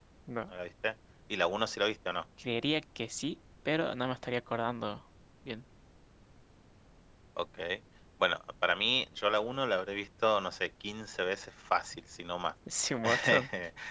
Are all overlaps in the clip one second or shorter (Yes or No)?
Yes